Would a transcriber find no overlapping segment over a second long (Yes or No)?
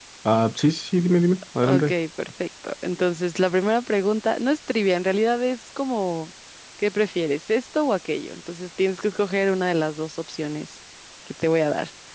Yes